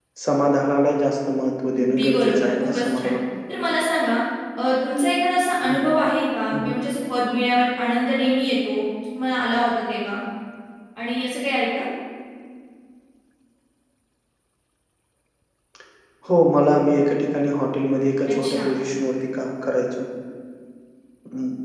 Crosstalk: present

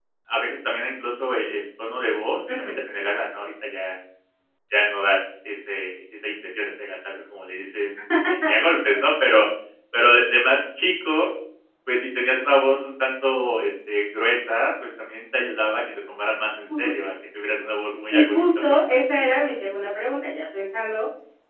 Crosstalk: present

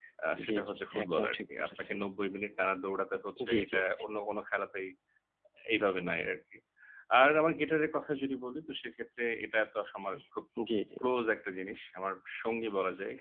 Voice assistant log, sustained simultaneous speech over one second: present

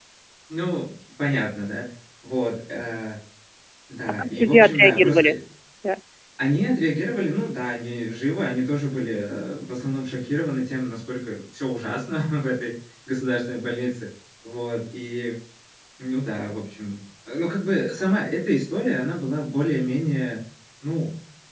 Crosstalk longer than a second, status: present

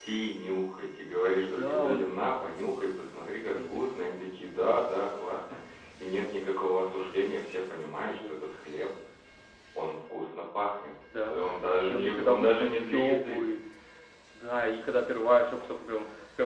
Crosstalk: present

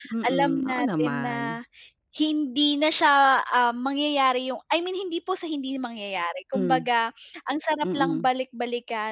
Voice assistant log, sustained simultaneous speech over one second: present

